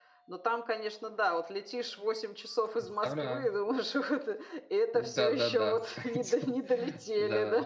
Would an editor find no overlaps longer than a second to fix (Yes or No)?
No